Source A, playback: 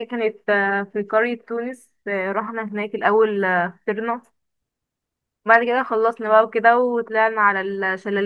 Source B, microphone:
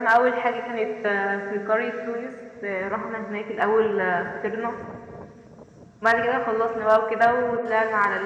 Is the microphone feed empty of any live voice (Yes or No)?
Yes